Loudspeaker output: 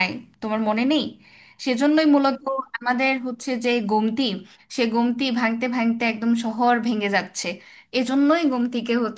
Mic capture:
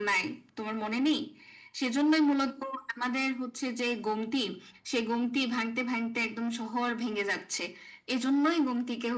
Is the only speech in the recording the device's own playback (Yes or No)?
Yes